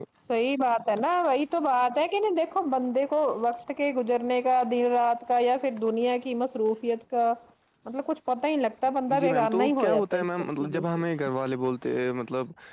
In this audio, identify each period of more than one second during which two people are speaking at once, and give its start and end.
9.2-11.0

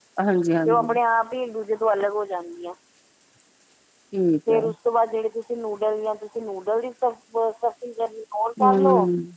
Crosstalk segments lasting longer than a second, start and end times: none

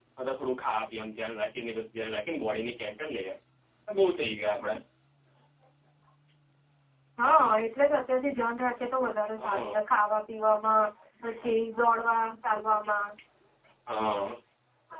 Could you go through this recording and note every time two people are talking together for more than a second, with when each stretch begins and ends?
none

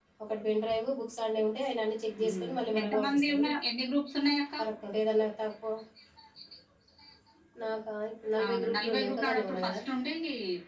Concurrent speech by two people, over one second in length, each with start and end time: 2.2-3.4, 8.4-9.8

